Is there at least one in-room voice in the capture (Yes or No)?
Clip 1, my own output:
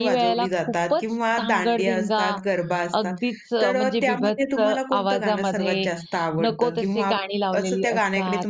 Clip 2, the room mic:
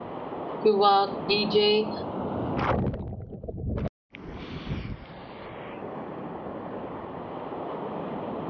Yes